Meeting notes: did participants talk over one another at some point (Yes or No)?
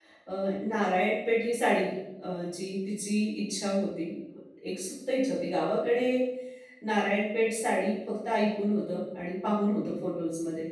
No